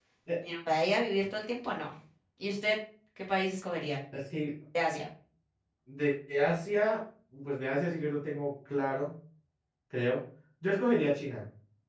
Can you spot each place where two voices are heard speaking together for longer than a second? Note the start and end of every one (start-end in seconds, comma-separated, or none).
none